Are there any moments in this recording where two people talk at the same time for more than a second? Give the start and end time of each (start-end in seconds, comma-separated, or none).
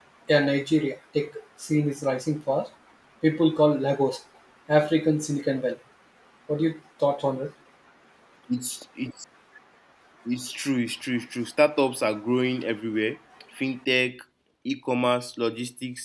none